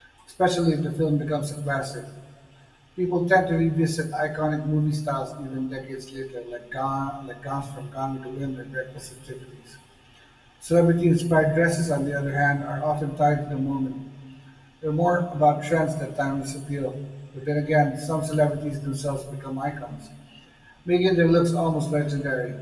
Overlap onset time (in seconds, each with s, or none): none